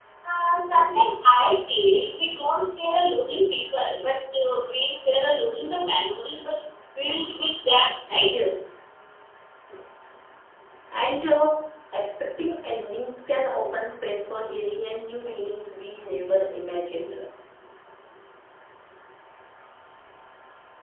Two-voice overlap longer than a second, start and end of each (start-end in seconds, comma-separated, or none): none